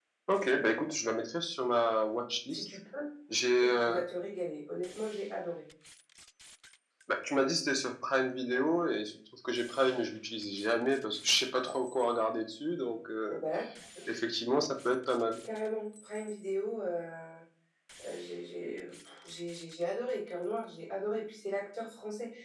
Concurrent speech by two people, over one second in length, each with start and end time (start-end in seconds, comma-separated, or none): none